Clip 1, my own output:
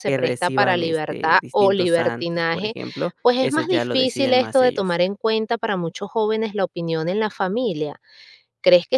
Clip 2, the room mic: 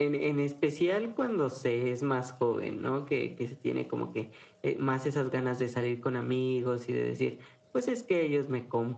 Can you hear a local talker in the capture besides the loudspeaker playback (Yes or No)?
Yes